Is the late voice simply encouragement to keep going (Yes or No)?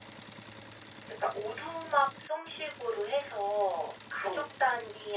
Yes